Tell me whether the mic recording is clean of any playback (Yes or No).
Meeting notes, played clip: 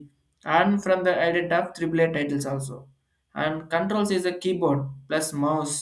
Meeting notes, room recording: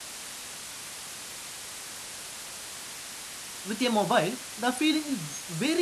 Yes